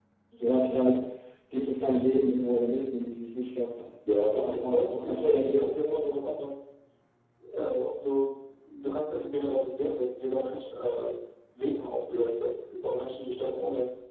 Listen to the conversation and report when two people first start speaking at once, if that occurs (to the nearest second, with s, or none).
4 s